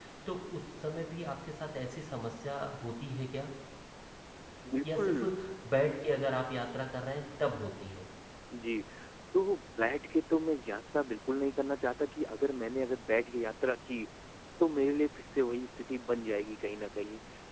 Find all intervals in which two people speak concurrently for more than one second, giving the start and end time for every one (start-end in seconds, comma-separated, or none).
none